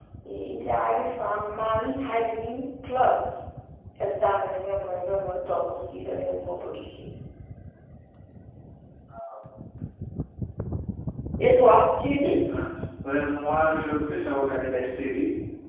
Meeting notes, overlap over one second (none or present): none